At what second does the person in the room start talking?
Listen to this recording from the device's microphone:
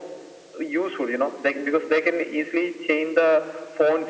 none

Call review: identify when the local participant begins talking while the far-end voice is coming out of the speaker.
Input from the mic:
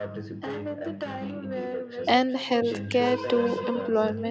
2.1 s

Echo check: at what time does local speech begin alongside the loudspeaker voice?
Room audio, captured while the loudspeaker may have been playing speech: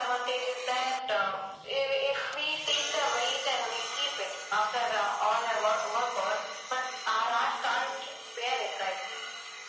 none

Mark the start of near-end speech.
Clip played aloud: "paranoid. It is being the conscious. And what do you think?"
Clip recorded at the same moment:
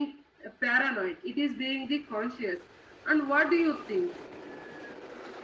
none

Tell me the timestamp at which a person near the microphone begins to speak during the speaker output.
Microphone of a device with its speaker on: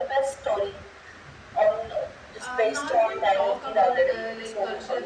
2.4 s

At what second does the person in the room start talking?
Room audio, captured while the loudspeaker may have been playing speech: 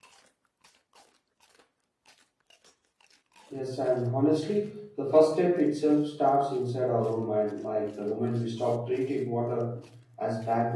3.5 s

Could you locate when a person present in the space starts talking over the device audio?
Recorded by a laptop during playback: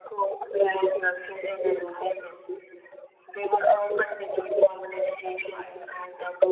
5.2 s

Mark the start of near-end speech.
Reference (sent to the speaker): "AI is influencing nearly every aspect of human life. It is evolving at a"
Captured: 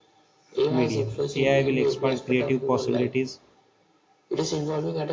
0.7 s

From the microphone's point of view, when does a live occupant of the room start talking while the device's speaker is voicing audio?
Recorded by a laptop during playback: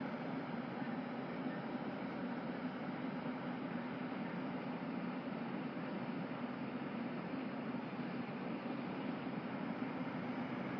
none

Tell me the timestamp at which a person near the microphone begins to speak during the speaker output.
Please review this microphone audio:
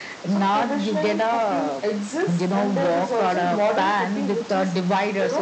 none

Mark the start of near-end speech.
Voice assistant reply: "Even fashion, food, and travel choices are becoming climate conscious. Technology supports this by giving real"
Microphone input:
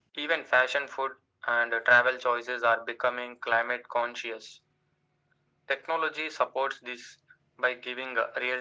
none

